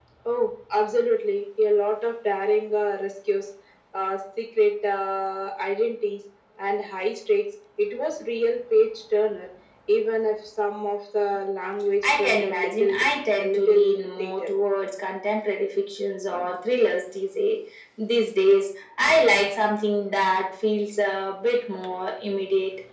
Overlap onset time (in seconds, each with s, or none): 12.0 s